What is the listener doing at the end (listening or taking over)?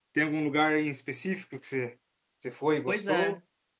taking over